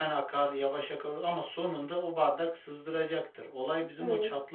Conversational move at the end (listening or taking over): listening